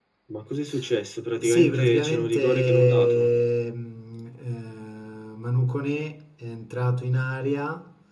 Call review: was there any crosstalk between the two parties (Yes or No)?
Yes